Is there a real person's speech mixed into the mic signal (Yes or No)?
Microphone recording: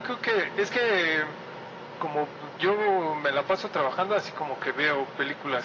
No